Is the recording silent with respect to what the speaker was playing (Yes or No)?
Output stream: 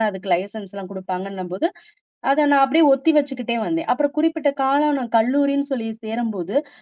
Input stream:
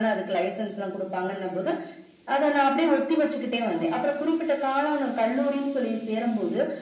No